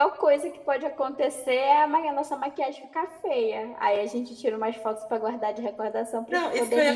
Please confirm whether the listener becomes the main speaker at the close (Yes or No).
Yes